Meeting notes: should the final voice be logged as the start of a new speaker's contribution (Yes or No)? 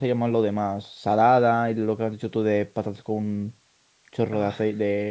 No